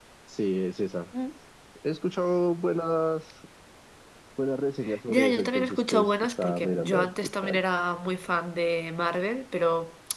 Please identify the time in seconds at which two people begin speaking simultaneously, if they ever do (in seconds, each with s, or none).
5.1 s